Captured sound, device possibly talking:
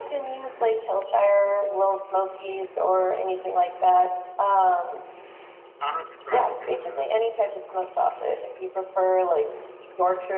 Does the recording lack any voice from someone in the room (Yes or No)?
No